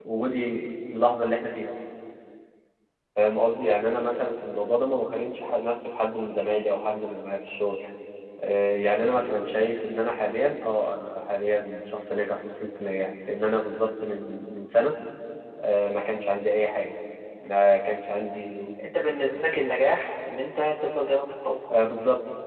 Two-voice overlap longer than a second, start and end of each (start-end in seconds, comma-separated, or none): none